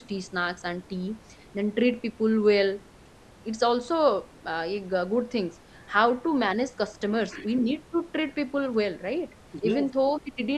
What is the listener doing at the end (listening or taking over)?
listening